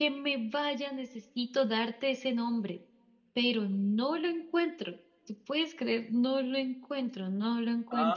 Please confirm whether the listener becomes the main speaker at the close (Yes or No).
Yes